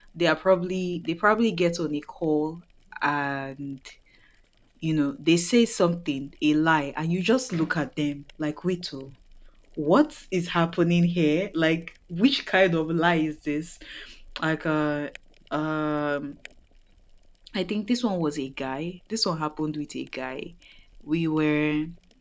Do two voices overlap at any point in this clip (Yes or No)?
No